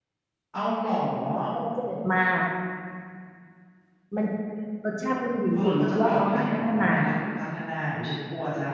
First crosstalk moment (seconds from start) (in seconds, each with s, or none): 5.6 s